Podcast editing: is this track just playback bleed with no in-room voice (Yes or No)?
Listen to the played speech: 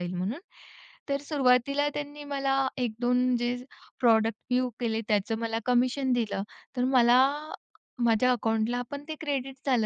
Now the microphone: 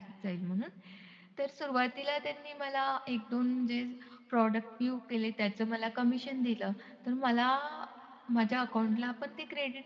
Yes